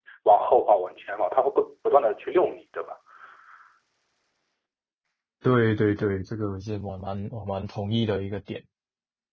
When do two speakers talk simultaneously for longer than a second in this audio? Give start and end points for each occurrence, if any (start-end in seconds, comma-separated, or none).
none